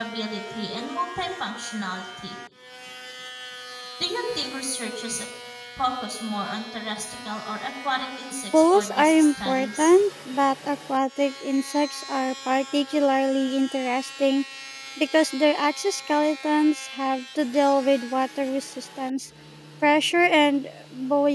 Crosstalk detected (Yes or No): Yes